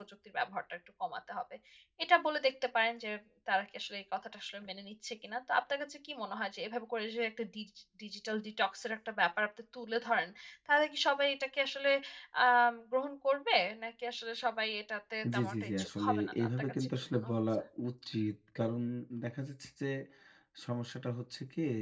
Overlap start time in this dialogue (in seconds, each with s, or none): 15.2 s